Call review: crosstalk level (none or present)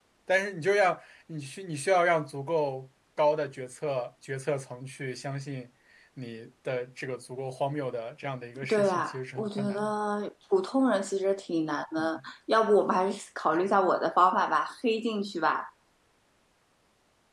present